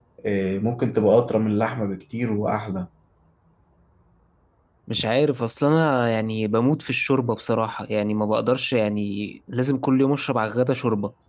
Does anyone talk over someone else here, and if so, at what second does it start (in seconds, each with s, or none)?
none